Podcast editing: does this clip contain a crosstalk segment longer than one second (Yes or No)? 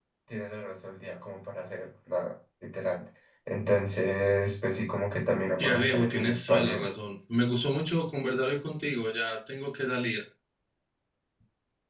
Yes